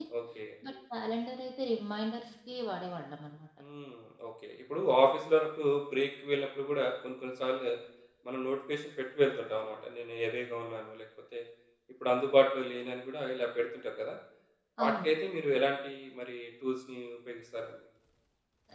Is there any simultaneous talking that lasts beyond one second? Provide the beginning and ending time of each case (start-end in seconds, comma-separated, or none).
none